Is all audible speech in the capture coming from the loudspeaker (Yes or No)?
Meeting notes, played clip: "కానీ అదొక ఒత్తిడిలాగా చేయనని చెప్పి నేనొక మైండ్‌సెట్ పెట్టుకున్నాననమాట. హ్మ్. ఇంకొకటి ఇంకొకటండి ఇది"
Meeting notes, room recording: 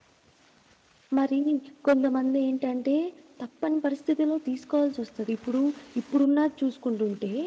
No